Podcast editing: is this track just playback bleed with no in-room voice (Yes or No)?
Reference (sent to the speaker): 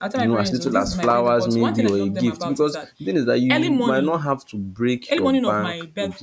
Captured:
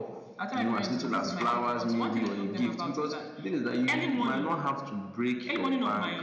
Yes